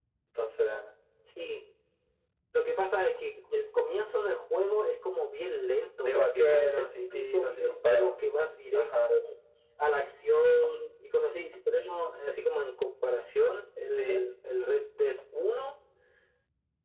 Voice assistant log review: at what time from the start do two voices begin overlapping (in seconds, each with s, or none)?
6.0 s